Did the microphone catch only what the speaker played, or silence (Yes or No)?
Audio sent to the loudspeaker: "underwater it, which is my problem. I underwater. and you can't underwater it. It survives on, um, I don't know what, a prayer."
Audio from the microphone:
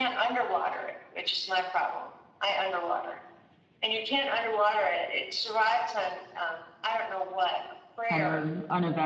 No